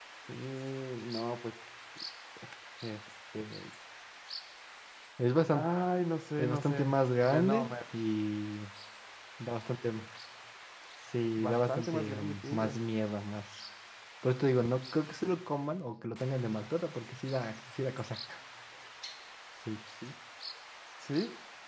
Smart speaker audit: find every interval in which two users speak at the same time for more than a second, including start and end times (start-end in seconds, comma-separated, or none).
6.4-7.7, 11.4-12.8